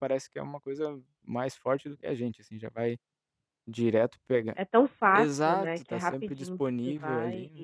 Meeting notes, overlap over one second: present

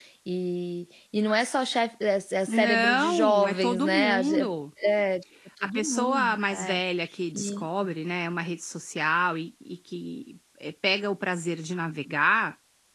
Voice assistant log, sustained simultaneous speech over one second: present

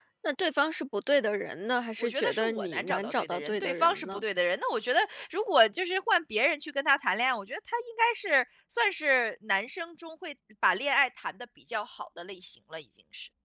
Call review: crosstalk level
present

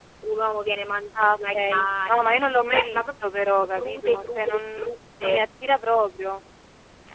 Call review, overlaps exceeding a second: present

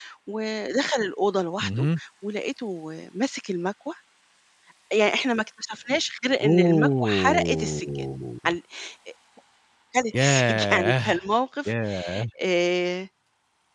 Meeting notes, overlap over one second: present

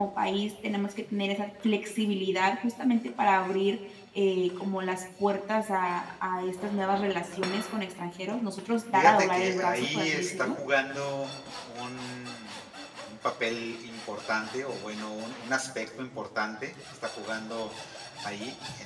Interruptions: present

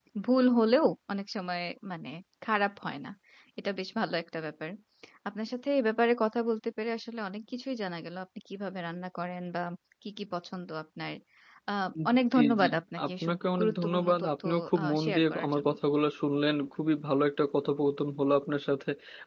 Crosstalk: present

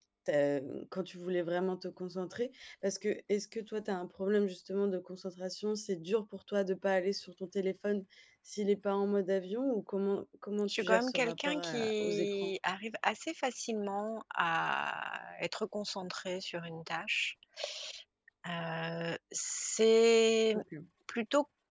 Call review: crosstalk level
present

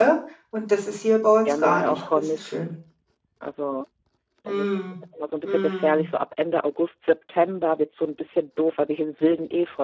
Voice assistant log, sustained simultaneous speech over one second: present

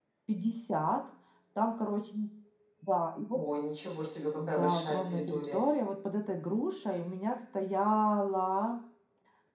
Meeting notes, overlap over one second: present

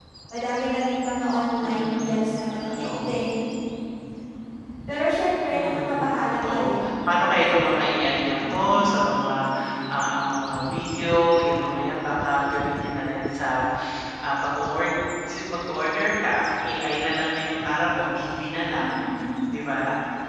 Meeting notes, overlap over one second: present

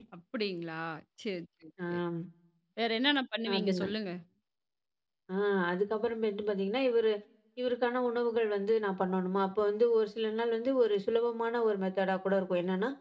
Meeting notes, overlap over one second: none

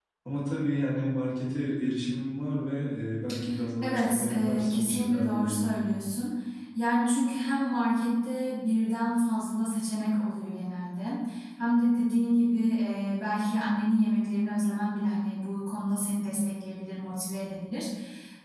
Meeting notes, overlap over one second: present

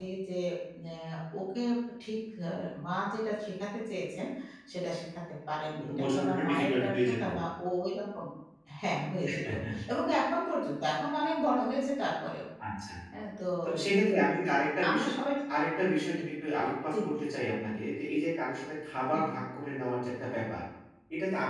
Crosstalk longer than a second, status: present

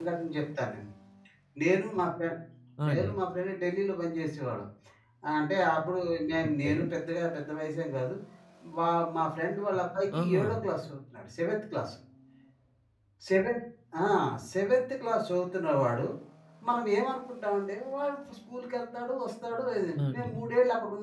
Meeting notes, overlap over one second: none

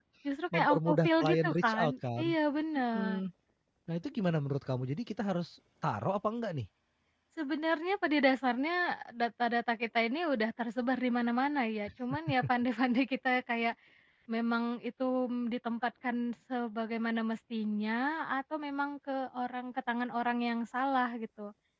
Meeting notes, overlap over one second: present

